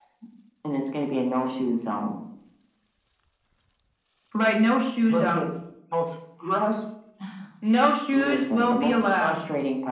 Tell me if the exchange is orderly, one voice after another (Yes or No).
No